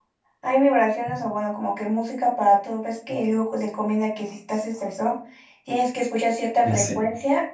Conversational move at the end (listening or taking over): listening